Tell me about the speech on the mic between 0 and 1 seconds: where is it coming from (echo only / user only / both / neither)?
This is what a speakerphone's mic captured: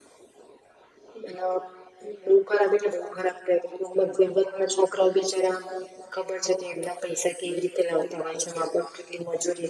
neither